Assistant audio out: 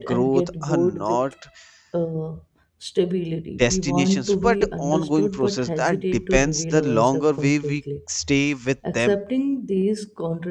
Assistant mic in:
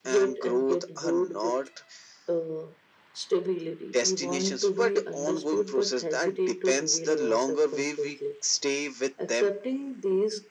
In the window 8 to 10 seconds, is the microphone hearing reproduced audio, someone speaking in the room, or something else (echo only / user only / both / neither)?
echo only